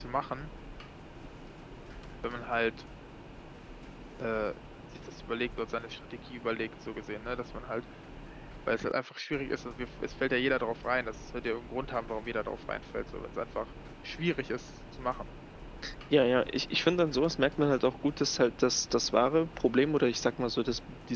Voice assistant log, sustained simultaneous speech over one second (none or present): none